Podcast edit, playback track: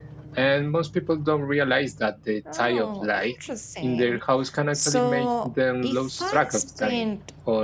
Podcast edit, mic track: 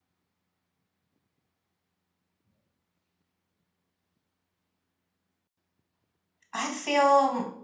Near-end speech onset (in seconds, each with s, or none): 6.5 s